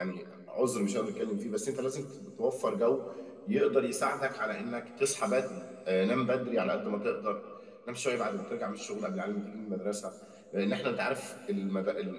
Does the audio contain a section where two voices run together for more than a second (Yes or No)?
No